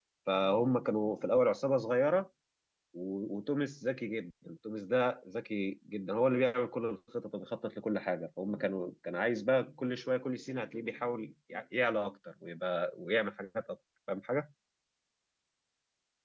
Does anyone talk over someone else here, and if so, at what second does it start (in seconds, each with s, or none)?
none